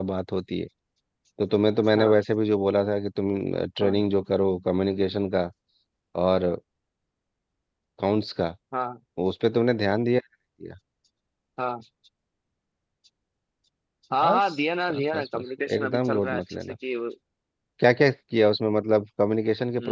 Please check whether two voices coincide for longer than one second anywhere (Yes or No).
Yes